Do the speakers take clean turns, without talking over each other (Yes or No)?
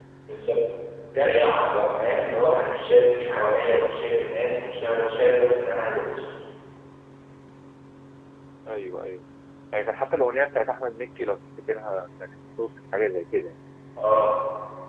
Yes